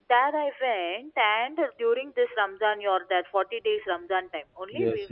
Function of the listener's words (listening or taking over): taking over